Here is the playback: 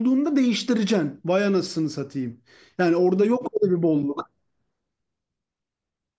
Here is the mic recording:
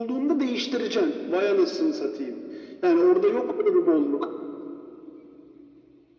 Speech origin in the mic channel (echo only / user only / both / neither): echo only